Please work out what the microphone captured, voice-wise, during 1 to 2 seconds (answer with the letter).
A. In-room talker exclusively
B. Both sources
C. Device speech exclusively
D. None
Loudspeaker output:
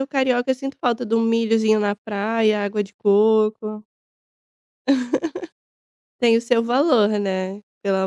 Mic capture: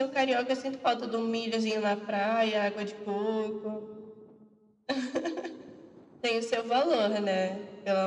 C